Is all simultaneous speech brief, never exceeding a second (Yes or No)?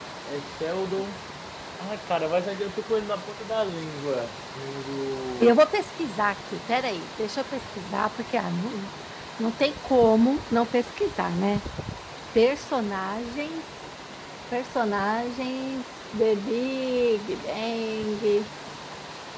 Yes